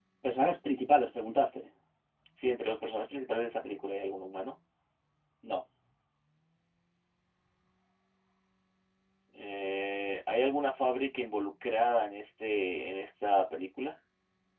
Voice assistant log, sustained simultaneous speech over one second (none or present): none